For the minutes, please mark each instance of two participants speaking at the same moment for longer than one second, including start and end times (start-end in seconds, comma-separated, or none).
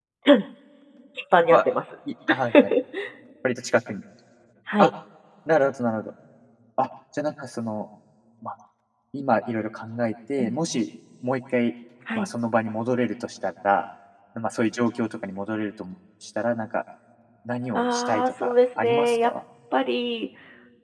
17.7-19.3